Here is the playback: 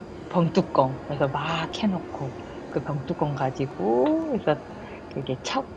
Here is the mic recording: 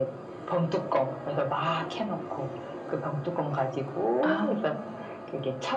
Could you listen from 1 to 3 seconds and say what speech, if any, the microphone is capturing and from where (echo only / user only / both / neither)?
echo only